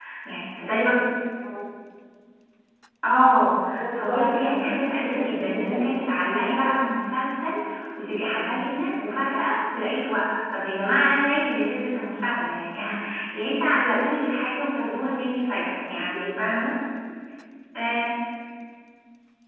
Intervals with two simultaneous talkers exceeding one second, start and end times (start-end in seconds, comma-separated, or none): 3.8-6.0